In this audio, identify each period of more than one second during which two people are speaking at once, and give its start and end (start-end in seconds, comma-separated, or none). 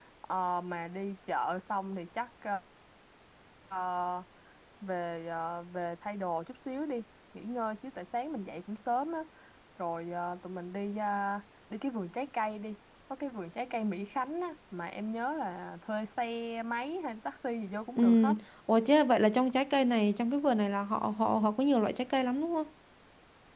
none